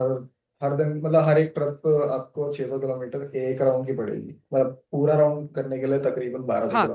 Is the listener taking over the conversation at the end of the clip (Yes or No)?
Yes